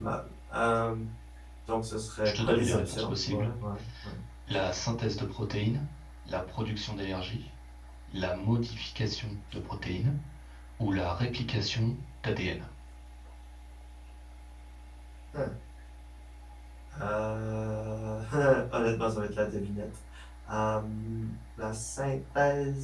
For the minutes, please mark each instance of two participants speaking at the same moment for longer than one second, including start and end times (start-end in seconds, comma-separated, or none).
2.2-3.5